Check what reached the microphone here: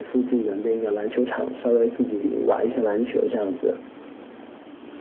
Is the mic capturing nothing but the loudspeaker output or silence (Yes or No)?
Yes